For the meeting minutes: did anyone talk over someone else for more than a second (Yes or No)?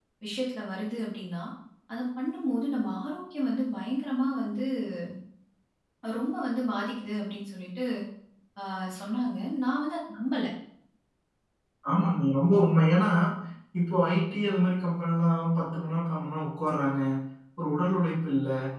No